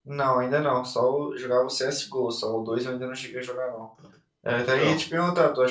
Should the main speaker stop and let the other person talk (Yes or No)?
No